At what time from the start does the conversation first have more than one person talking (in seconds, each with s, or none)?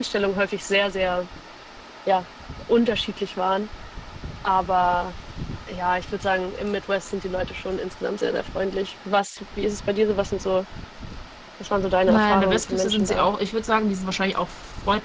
12.1 s